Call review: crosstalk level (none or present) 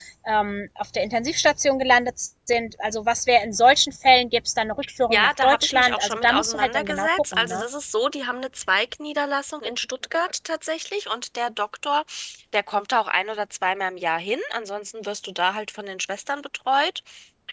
present